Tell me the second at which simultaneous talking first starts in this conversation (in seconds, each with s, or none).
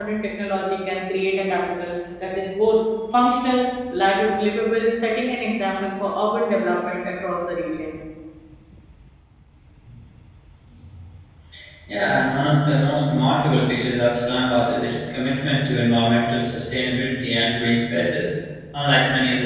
none